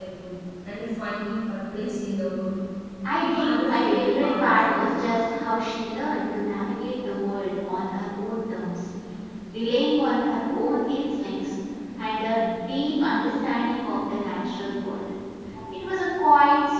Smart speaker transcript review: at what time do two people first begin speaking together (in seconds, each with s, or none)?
3.2 s